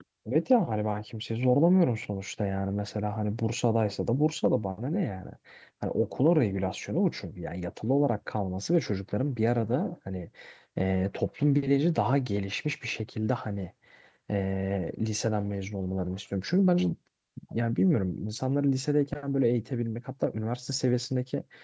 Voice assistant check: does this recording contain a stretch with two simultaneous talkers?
No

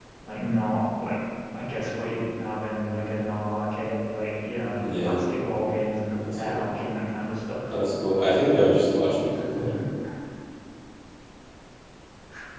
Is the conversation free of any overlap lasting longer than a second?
Yes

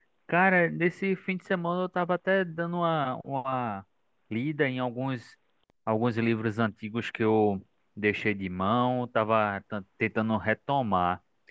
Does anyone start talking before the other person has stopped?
No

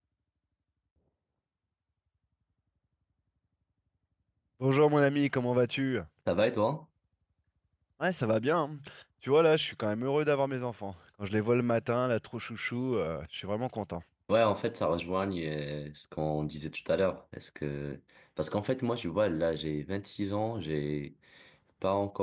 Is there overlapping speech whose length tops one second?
No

